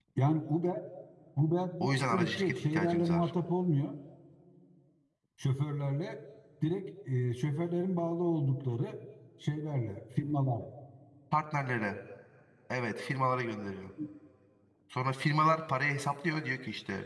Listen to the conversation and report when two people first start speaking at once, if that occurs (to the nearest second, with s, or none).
2 s